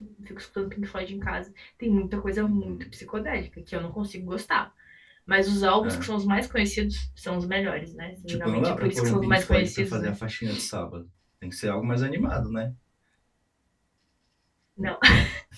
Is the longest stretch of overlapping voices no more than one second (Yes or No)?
No